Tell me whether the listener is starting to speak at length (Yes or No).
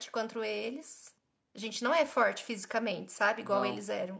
No